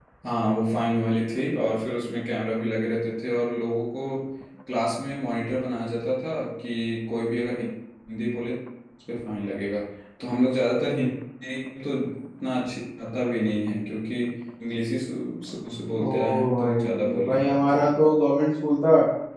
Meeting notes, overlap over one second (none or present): present